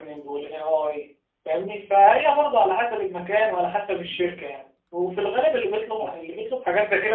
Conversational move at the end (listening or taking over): listening